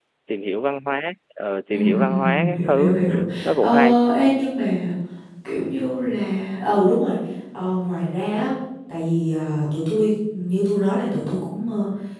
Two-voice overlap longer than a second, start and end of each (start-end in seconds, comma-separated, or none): 1.7-3.0